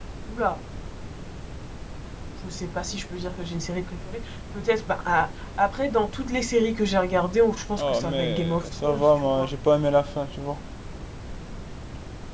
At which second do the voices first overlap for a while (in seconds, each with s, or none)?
7.8 s